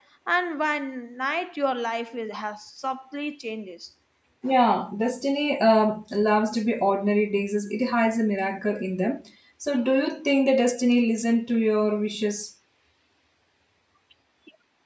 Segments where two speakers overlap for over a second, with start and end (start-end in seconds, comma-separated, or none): none